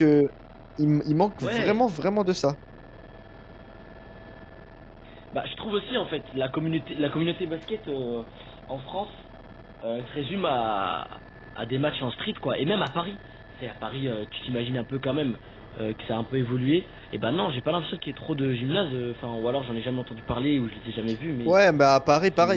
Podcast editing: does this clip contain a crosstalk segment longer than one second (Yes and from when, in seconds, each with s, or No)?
No